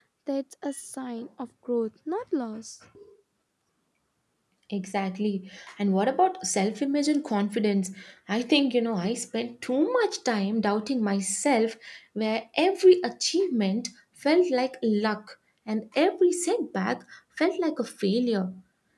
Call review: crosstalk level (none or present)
none